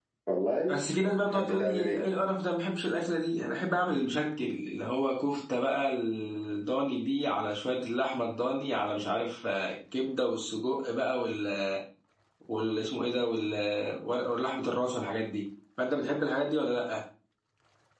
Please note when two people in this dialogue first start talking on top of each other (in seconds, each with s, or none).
0.7 s